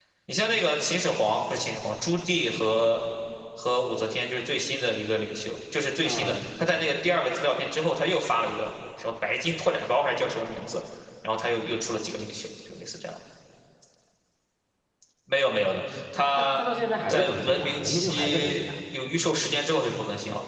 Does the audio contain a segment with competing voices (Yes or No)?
Yes